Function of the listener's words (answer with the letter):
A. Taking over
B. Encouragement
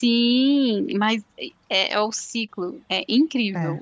B